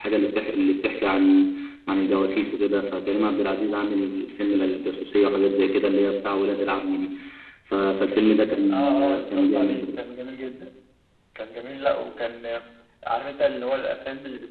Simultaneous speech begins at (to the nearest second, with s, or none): 9 s